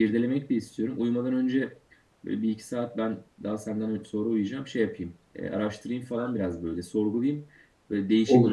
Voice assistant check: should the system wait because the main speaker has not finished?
Yes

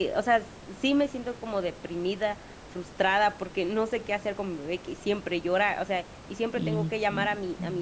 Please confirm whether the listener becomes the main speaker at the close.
No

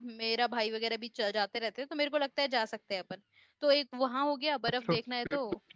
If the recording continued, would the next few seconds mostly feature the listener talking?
Yes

